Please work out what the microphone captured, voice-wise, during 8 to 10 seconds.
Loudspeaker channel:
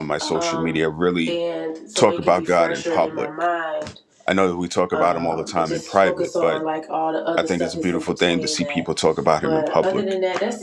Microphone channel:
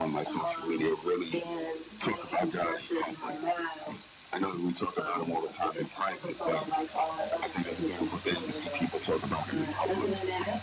echo only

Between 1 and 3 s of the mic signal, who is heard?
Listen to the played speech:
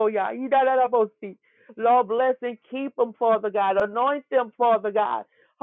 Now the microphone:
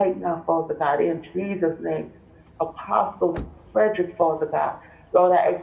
user only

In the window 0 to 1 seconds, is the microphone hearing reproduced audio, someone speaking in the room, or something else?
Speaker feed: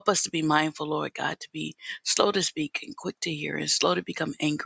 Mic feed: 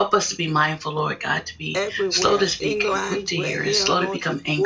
echo only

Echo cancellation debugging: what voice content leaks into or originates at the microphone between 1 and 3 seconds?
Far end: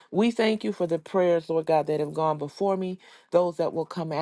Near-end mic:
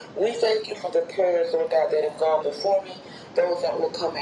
echo only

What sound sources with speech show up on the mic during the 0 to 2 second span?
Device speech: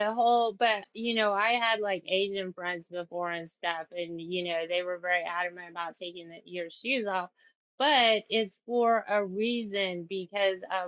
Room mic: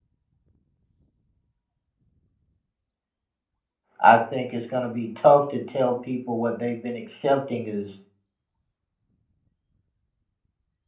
neither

